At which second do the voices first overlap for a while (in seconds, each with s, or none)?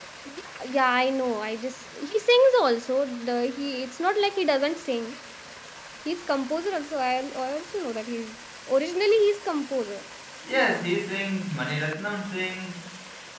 none